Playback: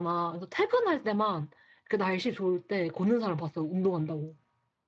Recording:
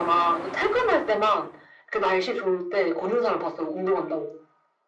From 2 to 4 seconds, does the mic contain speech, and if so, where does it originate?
echo only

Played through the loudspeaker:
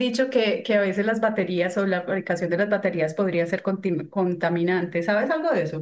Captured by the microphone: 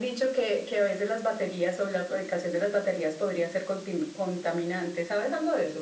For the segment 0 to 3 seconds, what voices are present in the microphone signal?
echo only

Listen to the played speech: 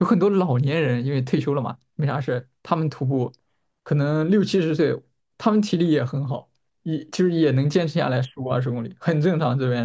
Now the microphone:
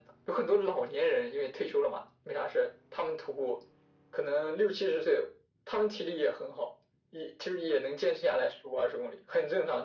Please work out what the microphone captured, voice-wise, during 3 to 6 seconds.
echo only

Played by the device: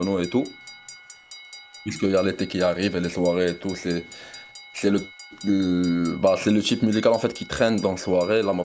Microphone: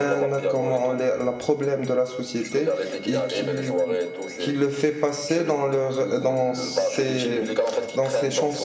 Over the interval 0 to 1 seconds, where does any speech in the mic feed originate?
both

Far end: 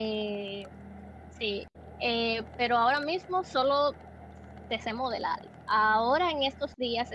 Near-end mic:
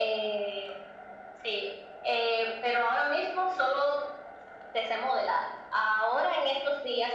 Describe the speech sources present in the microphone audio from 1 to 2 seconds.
echo only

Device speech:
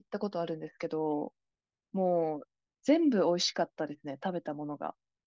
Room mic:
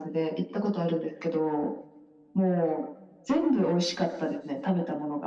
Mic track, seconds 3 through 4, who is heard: echo only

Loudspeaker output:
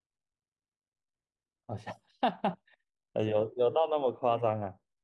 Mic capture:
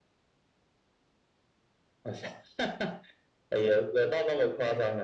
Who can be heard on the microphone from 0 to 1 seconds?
neither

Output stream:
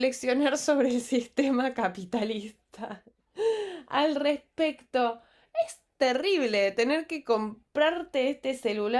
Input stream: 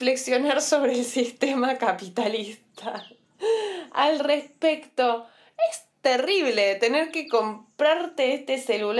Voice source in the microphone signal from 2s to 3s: echo only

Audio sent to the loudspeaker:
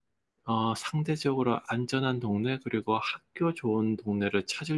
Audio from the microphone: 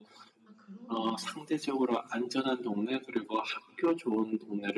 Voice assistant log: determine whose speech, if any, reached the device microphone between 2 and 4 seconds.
echo only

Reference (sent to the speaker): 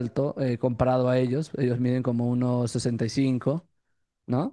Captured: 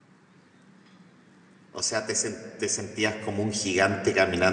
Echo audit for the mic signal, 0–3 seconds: user only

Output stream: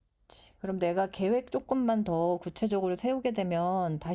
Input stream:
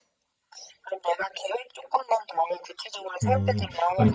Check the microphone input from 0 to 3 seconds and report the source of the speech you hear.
echo only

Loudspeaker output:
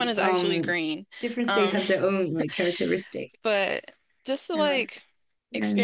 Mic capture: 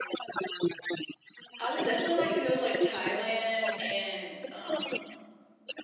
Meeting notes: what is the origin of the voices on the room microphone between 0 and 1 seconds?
echo only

